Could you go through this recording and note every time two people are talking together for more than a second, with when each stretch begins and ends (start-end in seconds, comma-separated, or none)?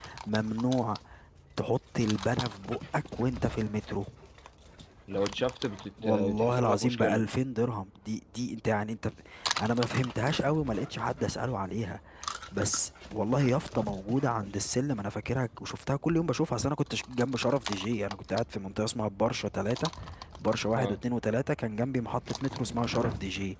6.0-7.2